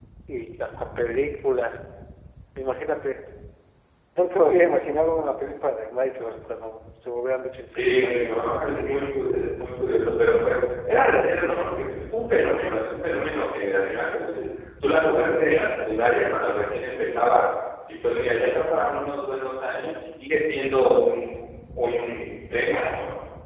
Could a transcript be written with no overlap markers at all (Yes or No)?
No